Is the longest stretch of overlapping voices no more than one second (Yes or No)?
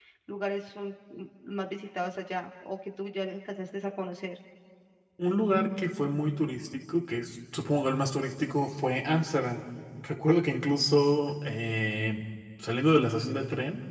Yes